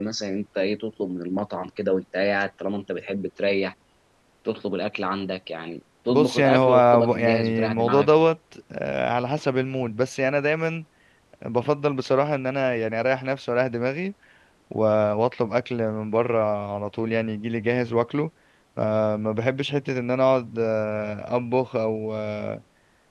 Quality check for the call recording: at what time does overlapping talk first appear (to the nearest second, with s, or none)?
6 s